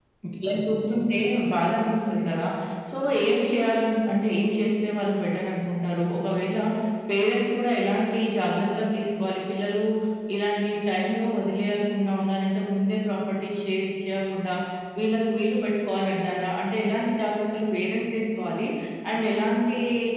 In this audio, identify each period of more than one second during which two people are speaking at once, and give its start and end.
none

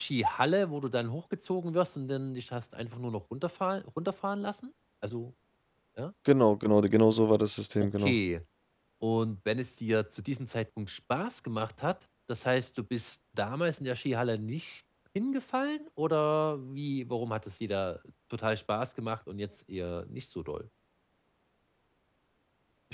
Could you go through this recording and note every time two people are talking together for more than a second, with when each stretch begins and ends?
none

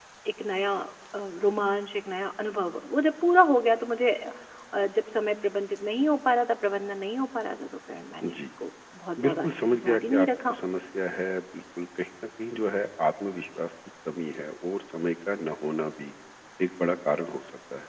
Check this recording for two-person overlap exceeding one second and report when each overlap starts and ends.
9.2-10.6

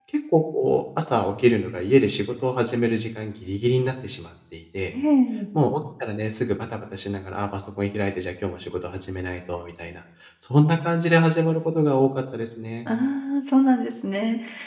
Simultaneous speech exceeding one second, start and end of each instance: none

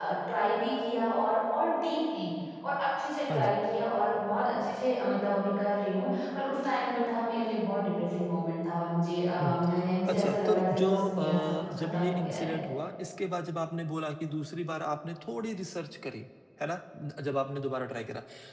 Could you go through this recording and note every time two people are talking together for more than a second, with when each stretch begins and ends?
10.1-12.5

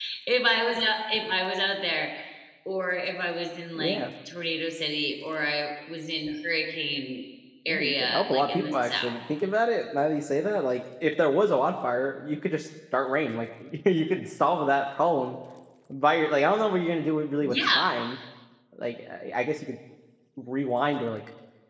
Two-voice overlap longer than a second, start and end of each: 7.7-9.2

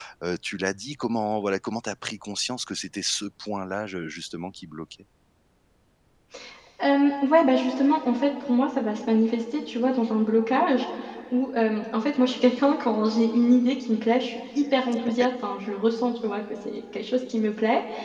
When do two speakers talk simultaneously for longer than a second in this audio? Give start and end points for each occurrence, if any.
none

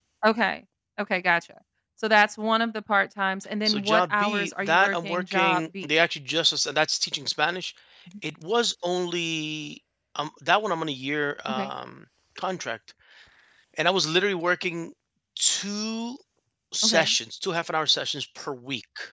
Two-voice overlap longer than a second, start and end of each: 3.6-5.9

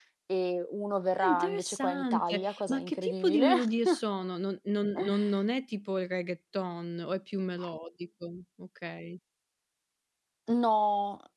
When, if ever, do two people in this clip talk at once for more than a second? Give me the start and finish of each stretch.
1.2-3.5

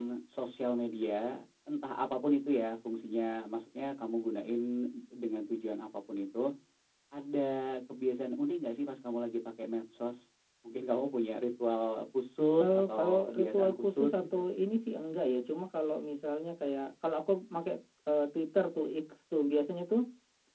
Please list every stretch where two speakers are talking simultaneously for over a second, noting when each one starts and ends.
12.6-14.4

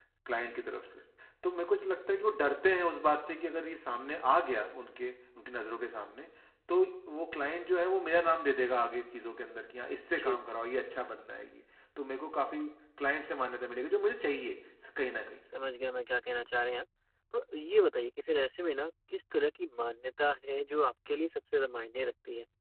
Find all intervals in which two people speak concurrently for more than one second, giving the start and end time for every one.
none

